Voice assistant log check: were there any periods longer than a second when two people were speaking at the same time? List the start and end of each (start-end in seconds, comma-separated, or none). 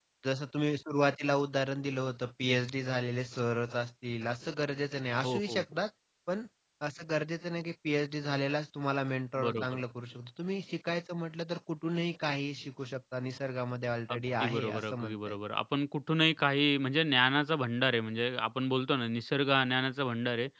14.1-15.3